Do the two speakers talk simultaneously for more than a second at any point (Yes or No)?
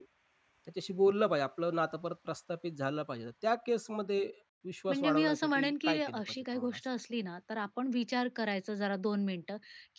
Yes